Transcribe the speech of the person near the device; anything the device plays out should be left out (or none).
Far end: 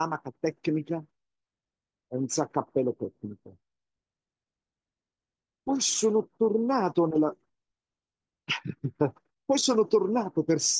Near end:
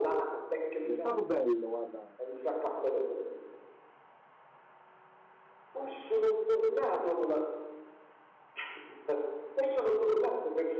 Ed è stato bello, guarda,